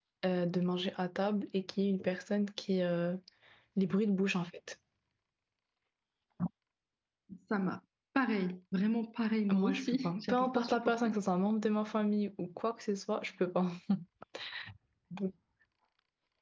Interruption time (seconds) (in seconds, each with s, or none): 9.5 s